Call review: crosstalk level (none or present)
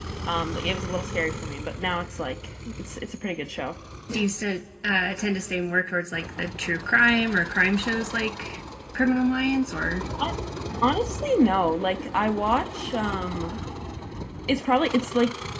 none